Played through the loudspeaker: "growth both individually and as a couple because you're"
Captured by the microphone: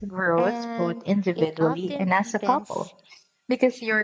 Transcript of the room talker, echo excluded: and it often deepens

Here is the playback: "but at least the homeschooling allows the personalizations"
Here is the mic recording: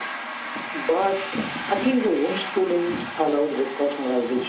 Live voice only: none

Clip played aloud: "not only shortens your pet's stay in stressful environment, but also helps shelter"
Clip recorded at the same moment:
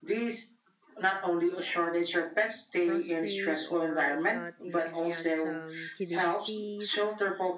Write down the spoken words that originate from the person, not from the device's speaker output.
prostate, or if not, he, he has some kidney disease,

